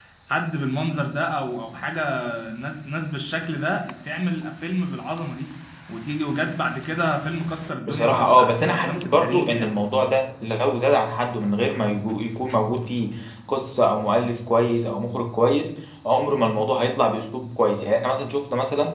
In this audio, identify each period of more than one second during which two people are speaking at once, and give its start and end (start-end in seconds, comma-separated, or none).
7.9-9.8